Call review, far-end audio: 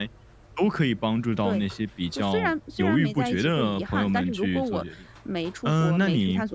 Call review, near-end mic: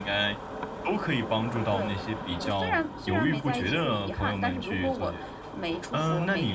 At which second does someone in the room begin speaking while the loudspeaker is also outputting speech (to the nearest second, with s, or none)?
none